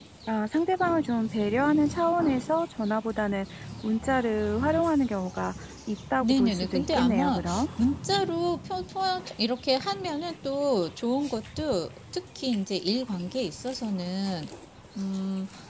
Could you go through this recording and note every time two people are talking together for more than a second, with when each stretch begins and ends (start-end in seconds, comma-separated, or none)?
6.2-7.7